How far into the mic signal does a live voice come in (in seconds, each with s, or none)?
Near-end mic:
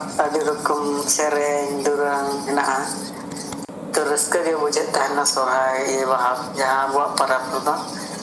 none